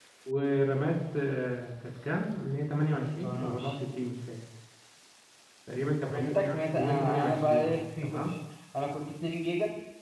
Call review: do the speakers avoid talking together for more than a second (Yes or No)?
No